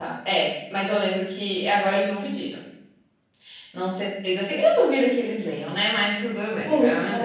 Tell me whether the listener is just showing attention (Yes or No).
No